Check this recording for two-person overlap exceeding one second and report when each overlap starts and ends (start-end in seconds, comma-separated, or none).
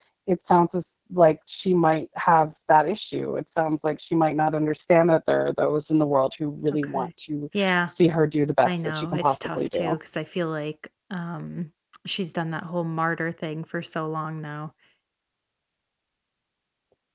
8.7-9.9